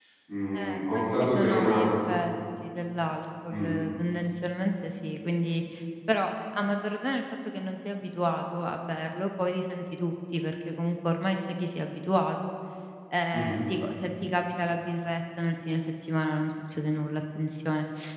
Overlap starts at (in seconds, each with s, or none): 0.5 s